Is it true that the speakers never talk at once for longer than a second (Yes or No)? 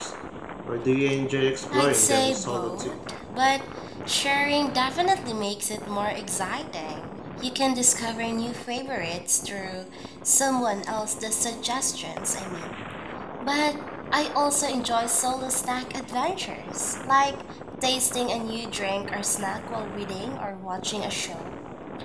No